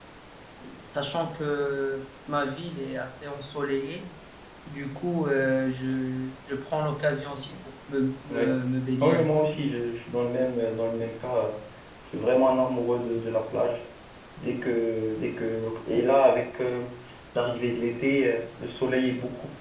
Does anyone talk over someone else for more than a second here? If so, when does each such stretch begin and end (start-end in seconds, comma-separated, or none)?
none